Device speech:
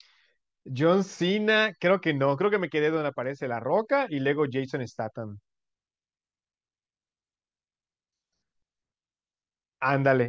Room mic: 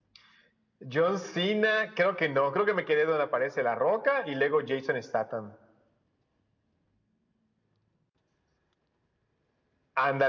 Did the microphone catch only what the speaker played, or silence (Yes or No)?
Yes